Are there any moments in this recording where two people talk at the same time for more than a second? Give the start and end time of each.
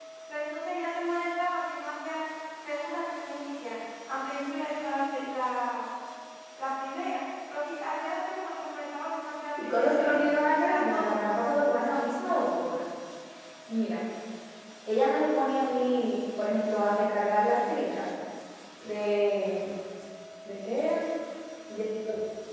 9.6-11.7

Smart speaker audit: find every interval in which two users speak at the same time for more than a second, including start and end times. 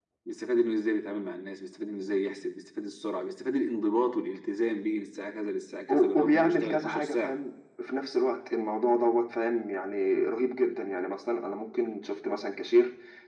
5.9-7.4

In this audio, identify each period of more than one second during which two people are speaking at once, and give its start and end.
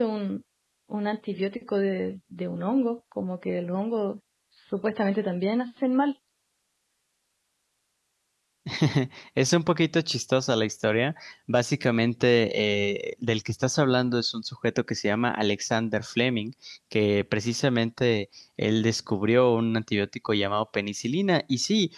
none

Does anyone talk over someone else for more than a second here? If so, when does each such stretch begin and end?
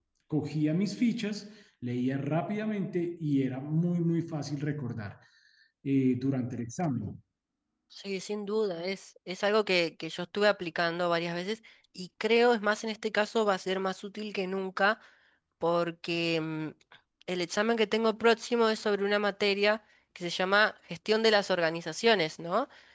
none

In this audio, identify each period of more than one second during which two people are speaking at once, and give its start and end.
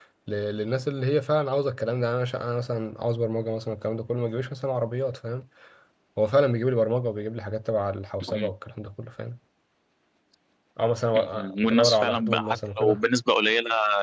11.2-13.0

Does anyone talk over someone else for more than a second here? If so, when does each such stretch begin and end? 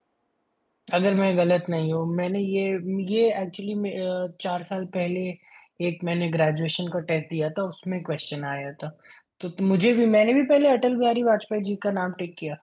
none

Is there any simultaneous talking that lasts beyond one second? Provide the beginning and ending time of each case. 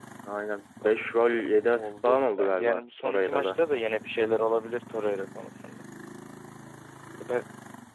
1.8-3.6

